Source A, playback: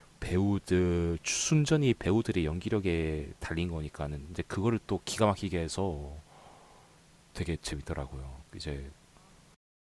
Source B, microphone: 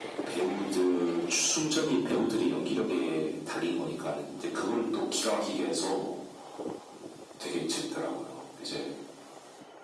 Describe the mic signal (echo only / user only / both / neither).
echo only